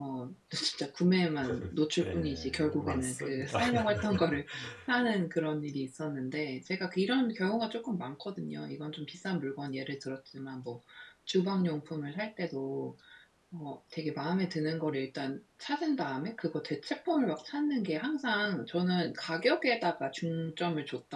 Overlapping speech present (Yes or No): Yes